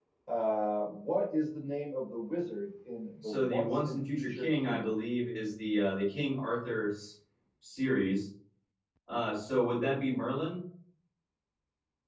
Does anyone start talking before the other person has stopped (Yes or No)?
Yes